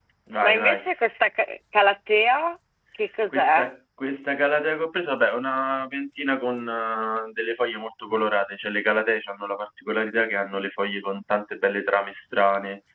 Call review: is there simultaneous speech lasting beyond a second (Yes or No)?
No